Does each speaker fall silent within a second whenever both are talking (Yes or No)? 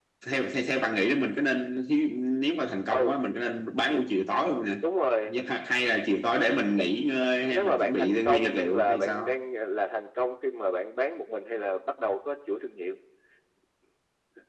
No